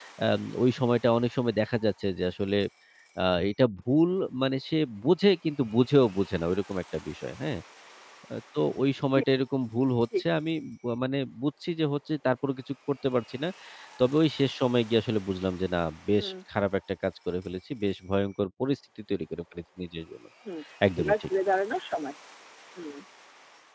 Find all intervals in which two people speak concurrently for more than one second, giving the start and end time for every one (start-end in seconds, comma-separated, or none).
none